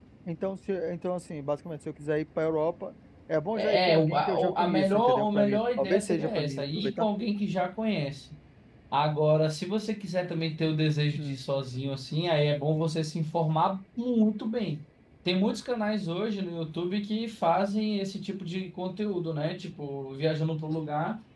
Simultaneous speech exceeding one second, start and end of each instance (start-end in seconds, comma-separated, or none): 3.5-7.1